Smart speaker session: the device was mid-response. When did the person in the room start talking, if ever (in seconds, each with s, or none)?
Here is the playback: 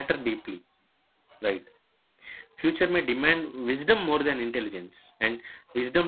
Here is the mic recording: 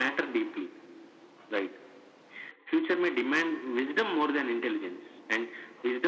none